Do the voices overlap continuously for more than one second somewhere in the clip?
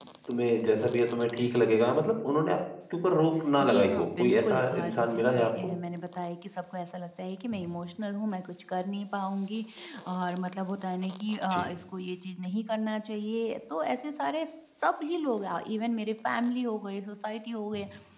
Yes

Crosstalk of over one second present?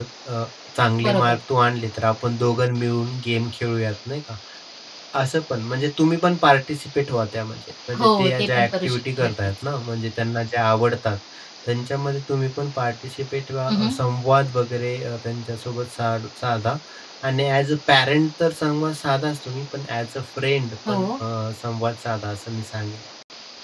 Yes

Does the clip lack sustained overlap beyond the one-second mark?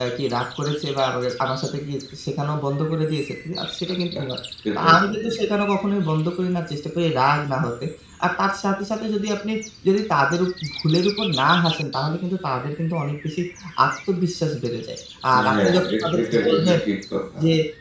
No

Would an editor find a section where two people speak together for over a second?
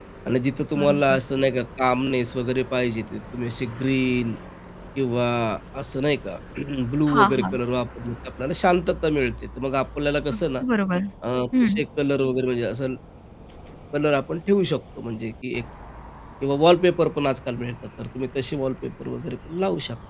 No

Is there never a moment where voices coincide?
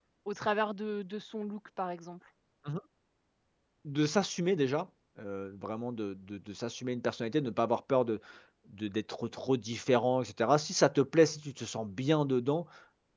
Yes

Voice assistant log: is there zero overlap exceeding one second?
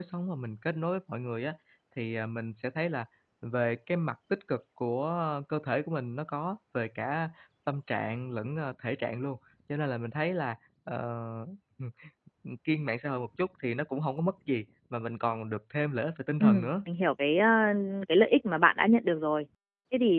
Yes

